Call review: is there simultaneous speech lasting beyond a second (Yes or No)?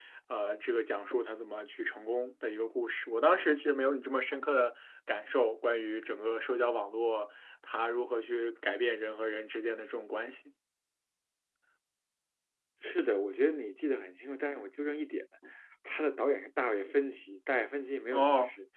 No